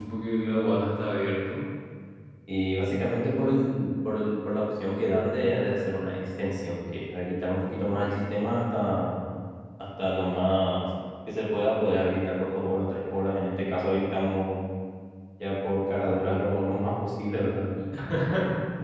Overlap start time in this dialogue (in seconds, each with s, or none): none